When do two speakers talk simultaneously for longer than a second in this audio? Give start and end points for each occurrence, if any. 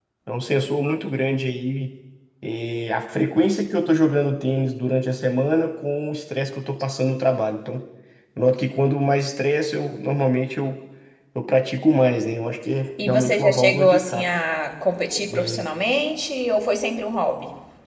13.1-14.3

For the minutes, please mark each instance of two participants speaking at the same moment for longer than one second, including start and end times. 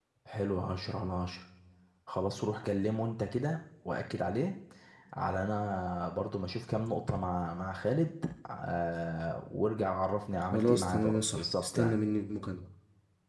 10.5-11.9

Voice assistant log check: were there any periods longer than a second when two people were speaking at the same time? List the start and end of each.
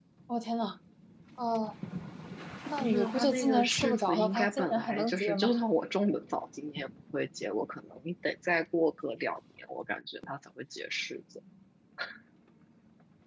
2.8-5.5

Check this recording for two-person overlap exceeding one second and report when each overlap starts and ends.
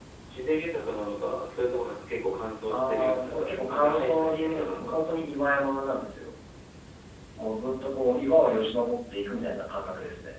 2.7-5.0

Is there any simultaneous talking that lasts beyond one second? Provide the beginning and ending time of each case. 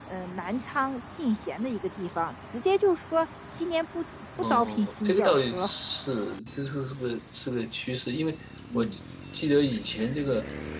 4.4-5.7

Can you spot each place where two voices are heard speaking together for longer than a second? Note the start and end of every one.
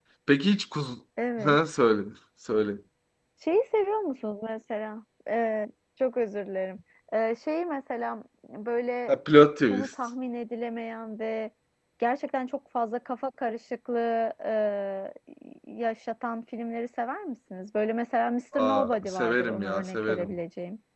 18.6-20.4

